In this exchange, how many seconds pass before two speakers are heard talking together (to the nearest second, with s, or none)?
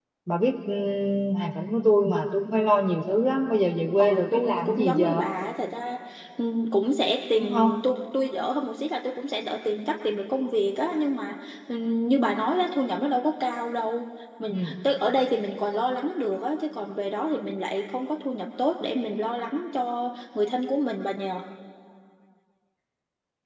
4 s